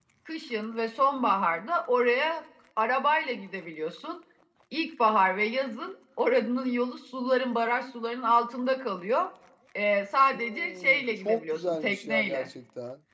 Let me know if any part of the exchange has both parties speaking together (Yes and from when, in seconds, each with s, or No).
Yes, from 10.3 s